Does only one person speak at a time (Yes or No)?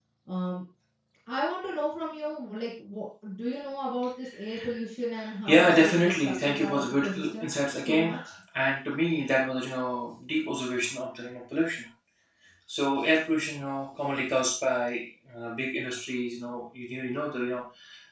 No